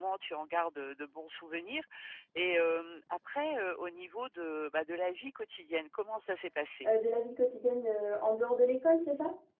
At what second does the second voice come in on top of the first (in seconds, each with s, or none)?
none